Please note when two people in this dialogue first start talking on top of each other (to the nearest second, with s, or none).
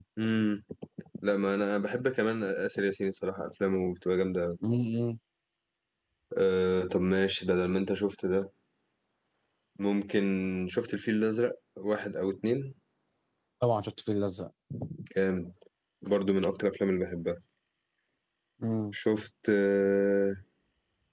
none